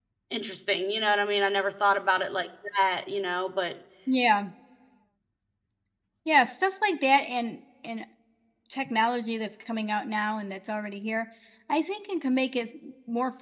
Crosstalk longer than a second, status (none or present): none